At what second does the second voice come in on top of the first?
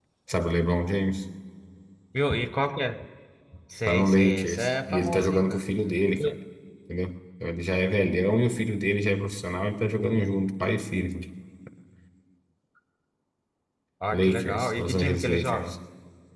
3.9 s

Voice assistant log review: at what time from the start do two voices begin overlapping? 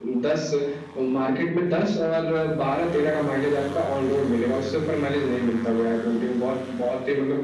none

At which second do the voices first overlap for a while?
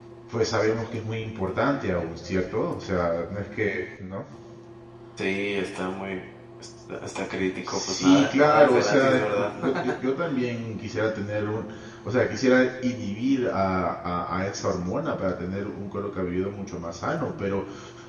7.6 s

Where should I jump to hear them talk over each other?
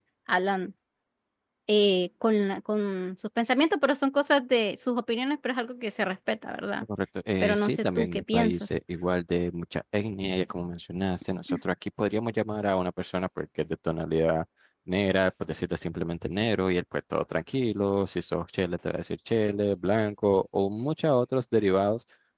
7.4 s

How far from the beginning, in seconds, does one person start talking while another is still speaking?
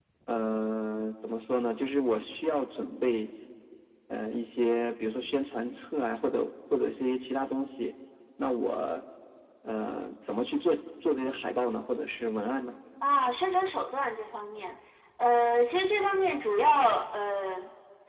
none

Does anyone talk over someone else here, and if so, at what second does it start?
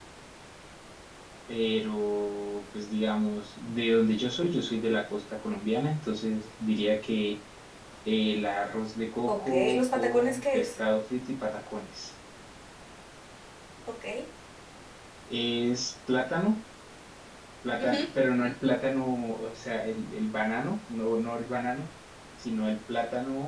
9.3 s

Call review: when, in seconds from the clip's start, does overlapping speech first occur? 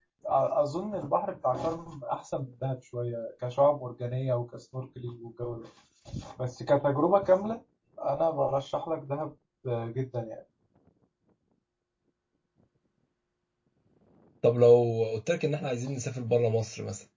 none

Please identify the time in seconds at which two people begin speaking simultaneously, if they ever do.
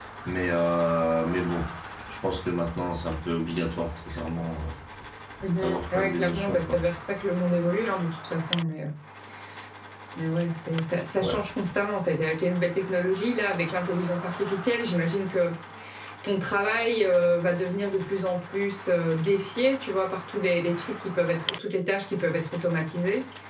5.6 s

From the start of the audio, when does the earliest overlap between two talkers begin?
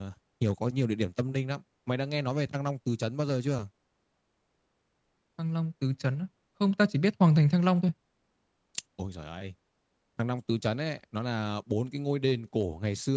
none

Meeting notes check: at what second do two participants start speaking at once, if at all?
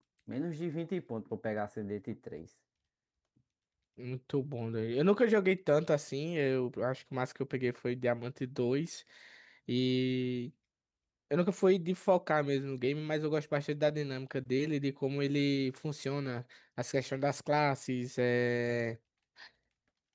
none

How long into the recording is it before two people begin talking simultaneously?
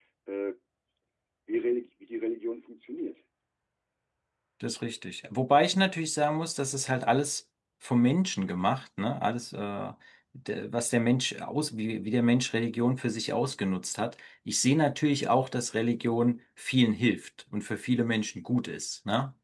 none

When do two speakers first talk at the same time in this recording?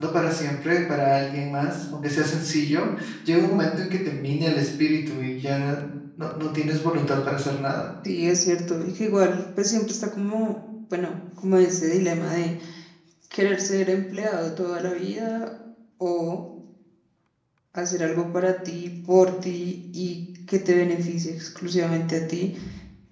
none

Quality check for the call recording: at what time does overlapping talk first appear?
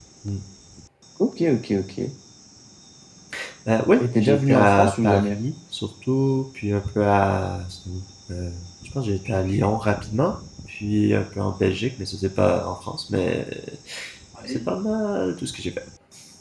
4.0 s

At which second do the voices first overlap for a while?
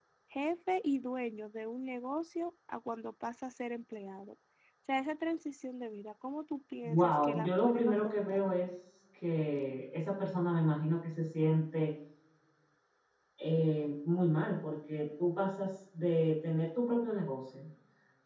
6.8 s

